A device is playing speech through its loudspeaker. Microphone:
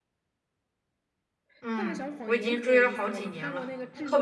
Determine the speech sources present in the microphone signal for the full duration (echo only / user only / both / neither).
both